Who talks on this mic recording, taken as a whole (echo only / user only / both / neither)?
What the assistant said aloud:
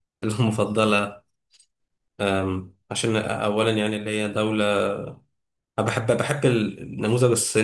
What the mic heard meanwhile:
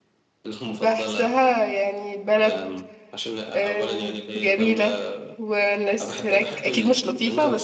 both